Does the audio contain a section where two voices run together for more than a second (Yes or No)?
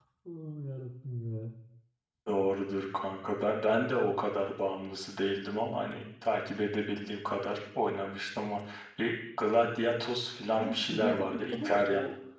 Yes